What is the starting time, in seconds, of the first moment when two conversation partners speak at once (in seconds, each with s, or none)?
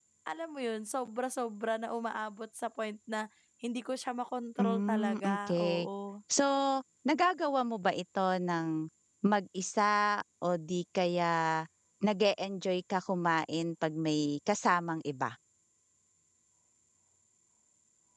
4.6 s